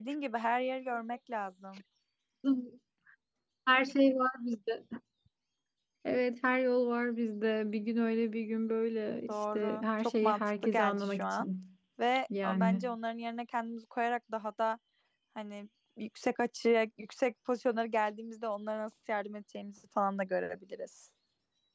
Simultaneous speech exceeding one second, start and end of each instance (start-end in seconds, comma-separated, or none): 9.3-11.5